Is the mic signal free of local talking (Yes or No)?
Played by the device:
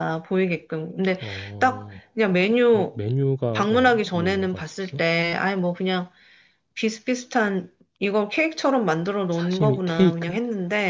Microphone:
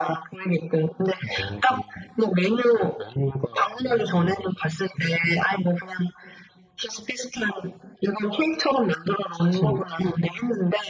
Yes